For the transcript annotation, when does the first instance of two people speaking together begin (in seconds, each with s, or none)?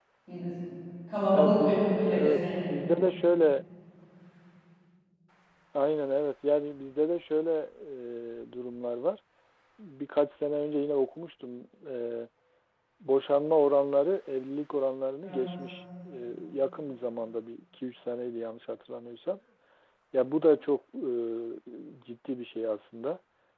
1.3 s